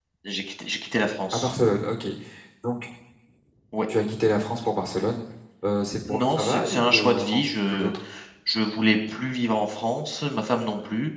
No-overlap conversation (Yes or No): No